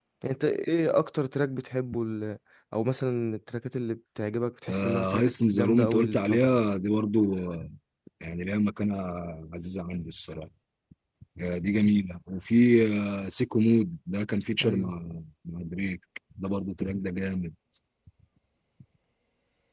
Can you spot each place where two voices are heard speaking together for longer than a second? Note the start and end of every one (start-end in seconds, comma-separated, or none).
4.7-6.7